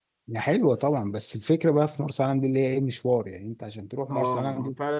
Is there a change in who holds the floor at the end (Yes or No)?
Yes